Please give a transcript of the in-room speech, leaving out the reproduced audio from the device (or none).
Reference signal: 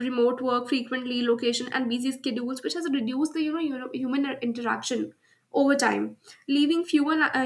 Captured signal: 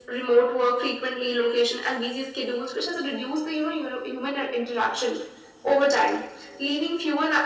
none